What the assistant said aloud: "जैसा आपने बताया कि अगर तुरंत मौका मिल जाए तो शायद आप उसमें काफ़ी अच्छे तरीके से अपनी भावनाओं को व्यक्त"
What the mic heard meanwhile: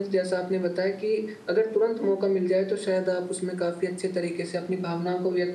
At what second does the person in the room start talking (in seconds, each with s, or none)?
none